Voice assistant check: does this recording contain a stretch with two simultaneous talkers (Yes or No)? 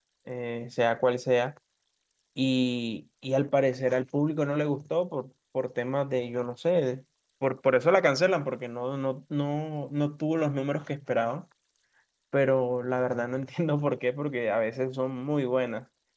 No